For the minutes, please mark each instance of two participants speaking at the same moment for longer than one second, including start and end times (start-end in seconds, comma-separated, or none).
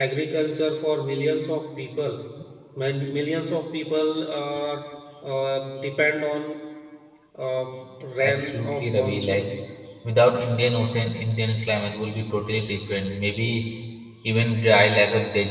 8.2-9.5